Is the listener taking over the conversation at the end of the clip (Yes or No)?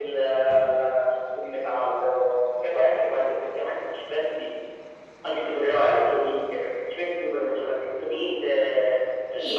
Yes